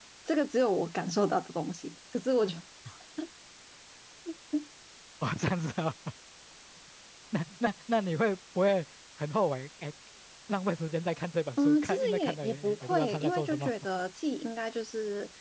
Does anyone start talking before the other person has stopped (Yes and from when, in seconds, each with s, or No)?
Yes, from 11.6 s